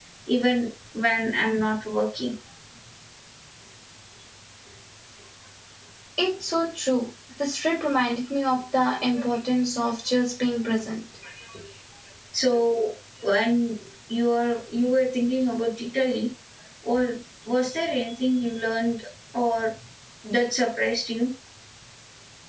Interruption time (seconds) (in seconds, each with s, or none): none